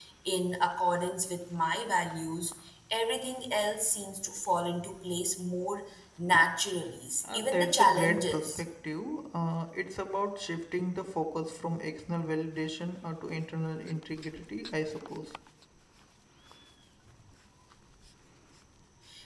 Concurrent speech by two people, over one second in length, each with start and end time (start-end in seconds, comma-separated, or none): 7.2-8.6